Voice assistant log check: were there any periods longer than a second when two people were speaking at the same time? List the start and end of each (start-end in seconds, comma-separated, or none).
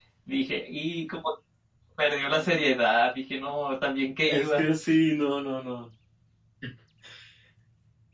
none